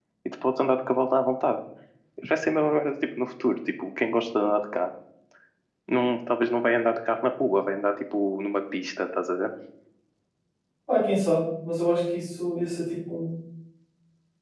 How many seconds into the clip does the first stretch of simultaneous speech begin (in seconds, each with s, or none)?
none